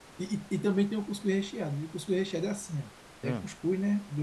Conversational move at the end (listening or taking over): listening